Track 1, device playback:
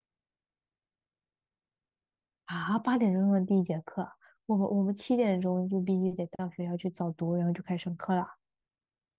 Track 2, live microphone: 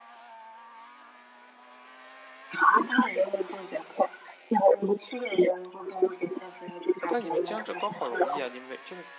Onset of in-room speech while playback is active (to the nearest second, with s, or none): 7 s